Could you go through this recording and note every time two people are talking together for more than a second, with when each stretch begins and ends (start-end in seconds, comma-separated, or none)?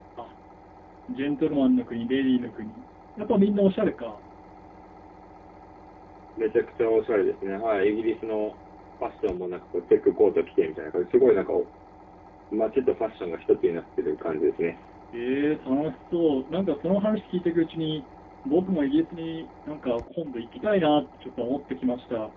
none